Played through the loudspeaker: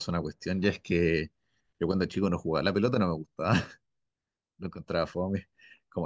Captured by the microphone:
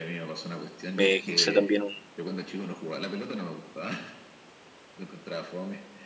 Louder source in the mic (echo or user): user